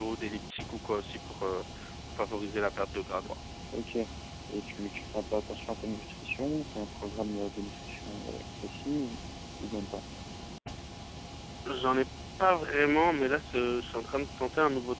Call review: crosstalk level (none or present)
none